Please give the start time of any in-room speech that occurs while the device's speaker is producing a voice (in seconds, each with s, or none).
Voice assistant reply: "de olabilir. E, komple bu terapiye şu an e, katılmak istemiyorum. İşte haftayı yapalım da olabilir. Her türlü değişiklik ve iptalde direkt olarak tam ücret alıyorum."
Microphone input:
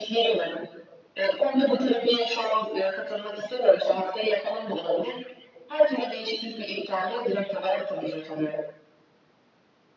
none